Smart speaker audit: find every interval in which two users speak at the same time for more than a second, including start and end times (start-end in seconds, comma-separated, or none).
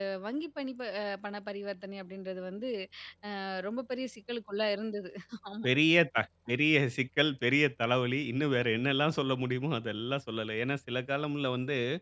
none